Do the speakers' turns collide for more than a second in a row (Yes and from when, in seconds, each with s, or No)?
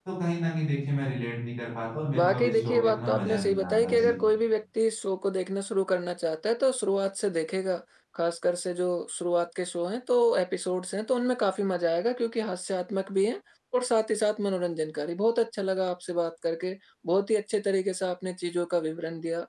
Yes, from 2.1 s